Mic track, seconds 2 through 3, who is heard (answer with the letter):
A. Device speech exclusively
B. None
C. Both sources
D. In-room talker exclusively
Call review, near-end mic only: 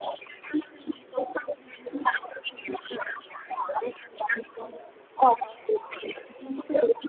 A